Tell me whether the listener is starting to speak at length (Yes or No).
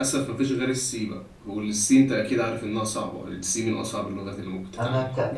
Yes